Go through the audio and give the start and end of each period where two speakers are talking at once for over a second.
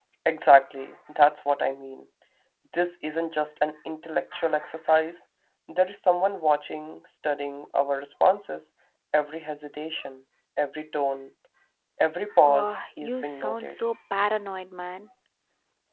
12.4-13.8

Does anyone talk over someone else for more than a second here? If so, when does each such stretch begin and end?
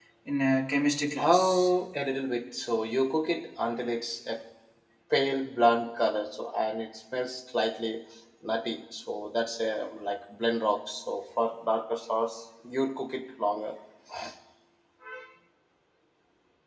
none

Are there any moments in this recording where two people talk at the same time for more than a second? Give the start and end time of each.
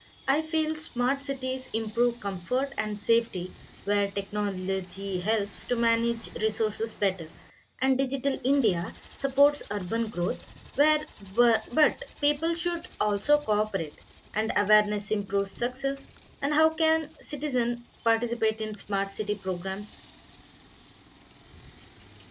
none

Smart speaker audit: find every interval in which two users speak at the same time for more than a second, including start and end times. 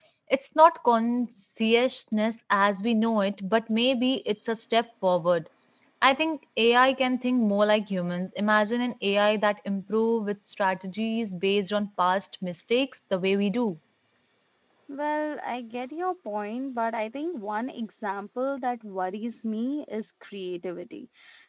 none

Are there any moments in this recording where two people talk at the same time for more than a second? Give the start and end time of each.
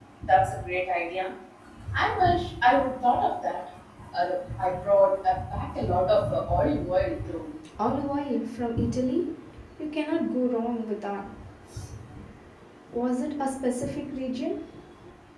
none

